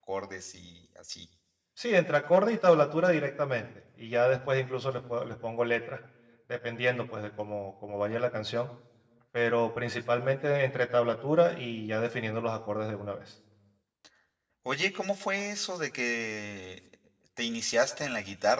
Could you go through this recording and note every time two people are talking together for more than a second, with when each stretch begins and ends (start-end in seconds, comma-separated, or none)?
none